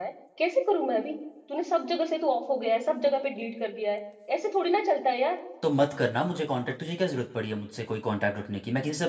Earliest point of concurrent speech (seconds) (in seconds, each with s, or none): none